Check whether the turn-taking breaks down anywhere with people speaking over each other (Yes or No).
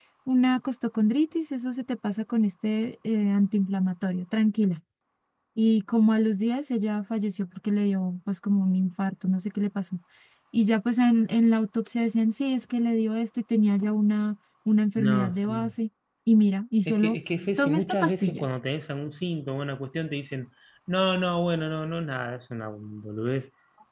Yes